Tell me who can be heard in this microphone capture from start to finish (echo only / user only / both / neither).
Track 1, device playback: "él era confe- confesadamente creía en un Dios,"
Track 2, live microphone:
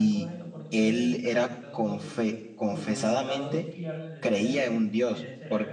both